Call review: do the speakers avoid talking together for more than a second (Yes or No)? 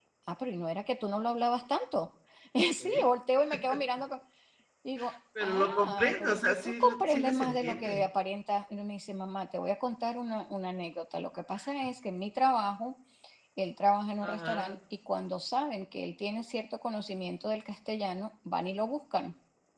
No